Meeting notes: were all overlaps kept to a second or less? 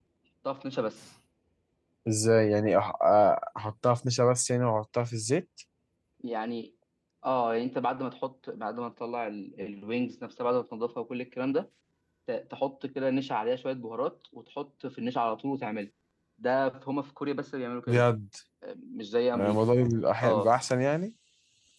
Yes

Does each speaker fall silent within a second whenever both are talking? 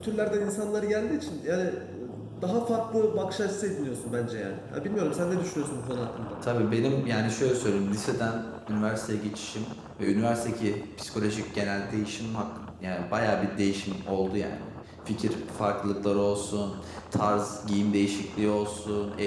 Yes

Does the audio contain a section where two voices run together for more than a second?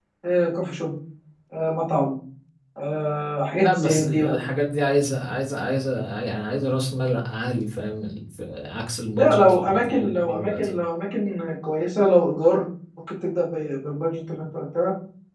Yes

